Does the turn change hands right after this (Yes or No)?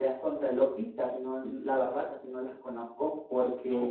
No